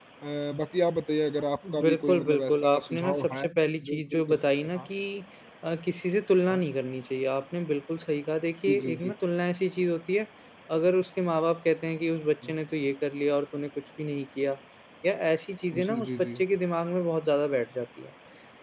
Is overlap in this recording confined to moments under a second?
No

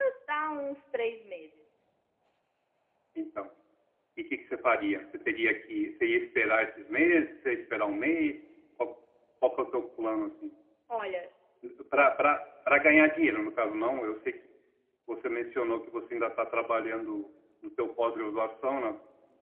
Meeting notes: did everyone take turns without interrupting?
Yes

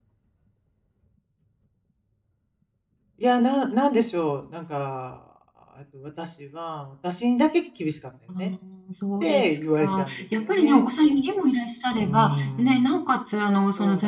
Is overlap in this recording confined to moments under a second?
No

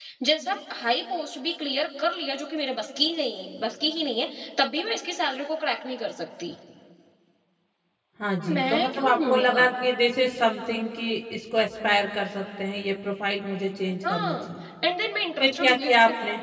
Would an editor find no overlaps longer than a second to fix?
No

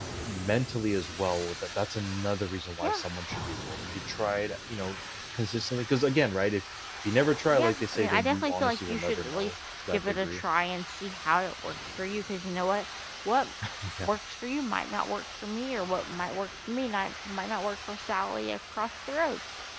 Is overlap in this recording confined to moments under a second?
No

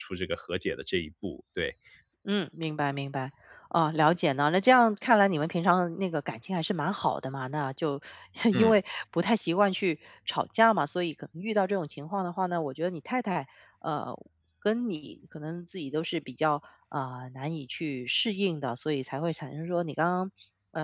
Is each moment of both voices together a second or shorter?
Yes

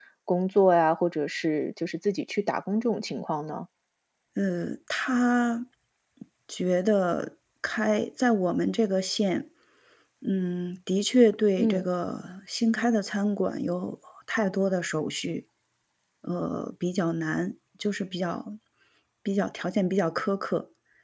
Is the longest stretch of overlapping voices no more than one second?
Yes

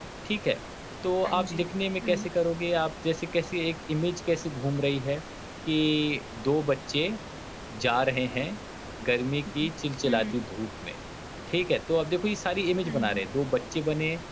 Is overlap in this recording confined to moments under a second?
Yes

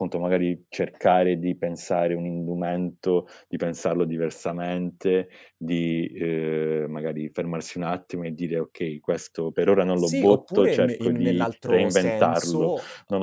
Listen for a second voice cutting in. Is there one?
Yes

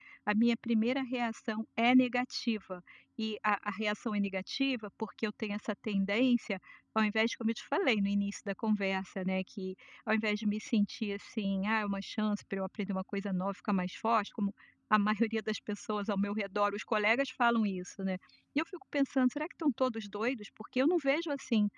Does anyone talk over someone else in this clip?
No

